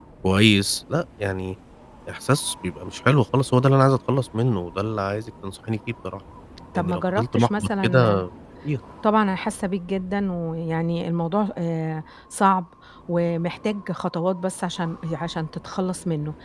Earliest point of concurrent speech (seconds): 6.8 s

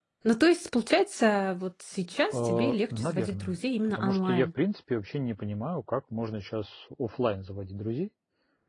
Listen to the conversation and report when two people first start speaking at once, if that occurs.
2.3 s

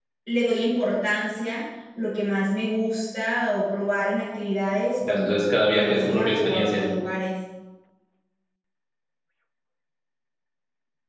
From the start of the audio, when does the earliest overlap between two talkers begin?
5.0 s

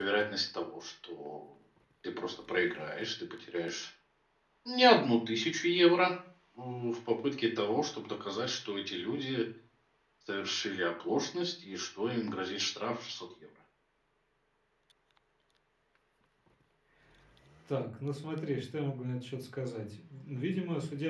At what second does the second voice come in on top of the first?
none

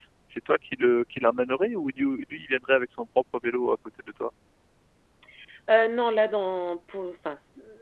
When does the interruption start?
none

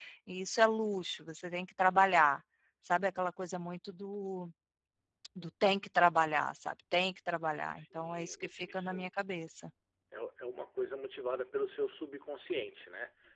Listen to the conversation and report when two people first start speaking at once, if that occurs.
7.8 s

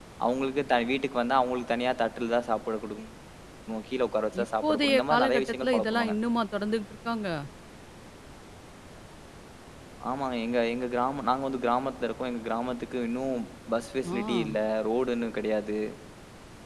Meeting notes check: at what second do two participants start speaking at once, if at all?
4.4 s

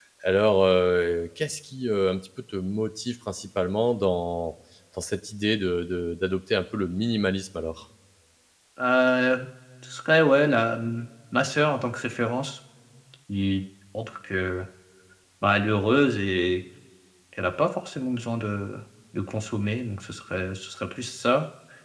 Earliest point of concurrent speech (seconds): none

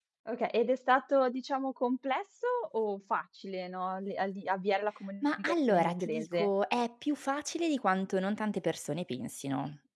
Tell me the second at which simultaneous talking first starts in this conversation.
5.2 s

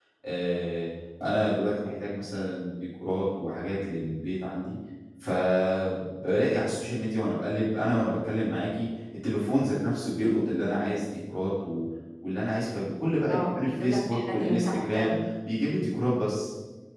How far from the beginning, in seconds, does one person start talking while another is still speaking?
13.3 s

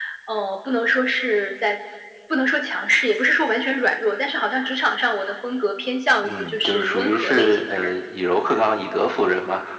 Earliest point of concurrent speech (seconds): 6.2 s

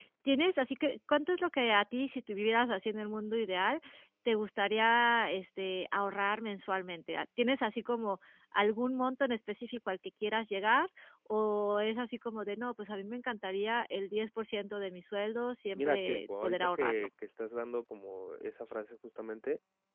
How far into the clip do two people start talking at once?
15.8 s

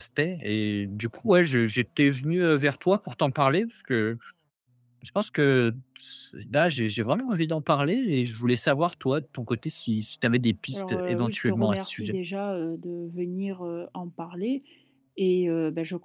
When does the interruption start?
10.7 s

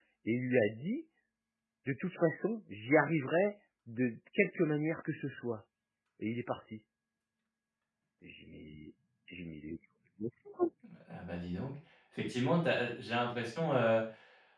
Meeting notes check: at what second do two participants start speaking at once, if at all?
none

